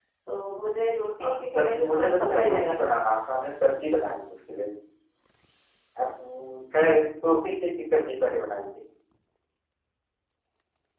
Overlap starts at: 1.2 s

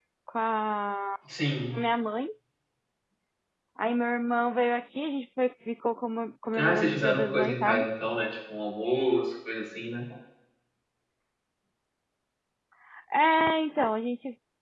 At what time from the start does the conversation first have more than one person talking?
6.5 s

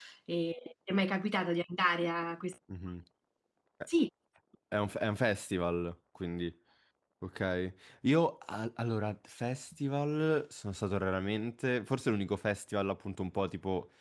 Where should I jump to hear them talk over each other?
none

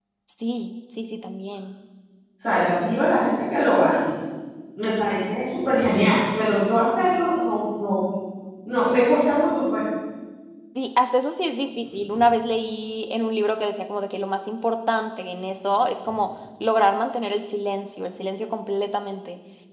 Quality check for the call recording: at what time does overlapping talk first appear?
none

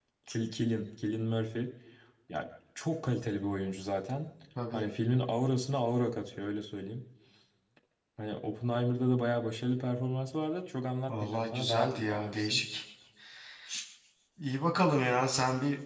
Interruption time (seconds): 11.1 s

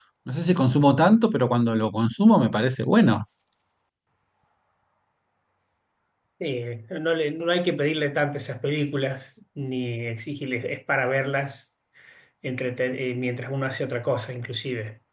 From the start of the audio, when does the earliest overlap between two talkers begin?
none

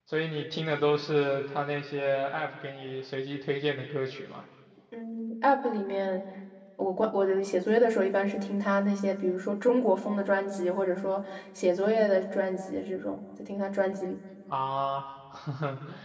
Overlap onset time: none

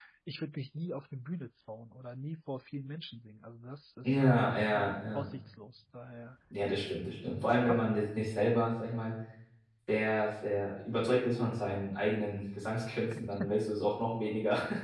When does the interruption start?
4.0 s

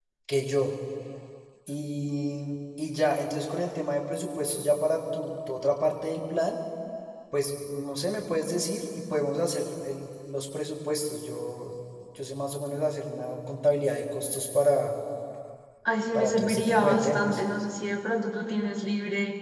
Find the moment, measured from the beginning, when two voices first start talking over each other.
16.1 s

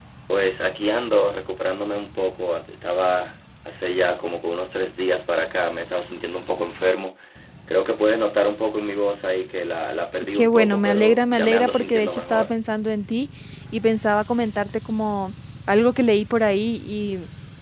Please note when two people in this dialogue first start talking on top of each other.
10.3 s

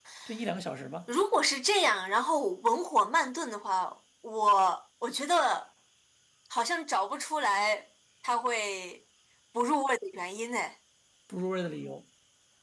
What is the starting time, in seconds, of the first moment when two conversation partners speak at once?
none

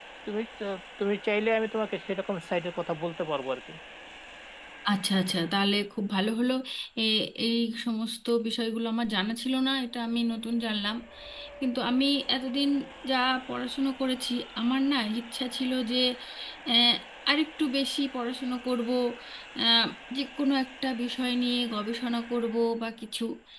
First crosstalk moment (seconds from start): none

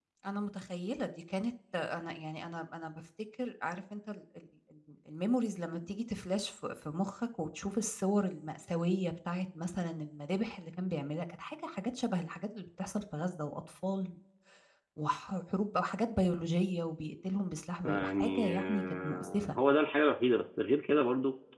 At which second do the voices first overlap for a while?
17.8 s

